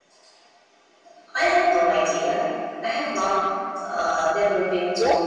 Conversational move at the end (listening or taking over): taking over